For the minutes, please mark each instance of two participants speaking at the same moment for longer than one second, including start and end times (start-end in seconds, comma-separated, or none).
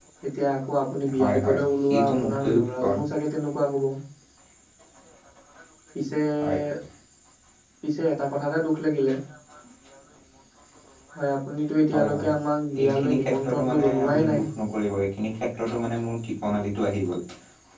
1.2-3.0, 12.8-14.4